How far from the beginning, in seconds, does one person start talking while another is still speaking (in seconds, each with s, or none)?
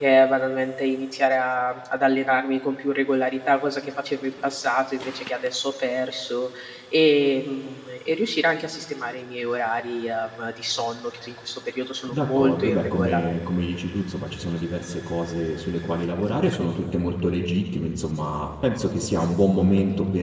12.1 s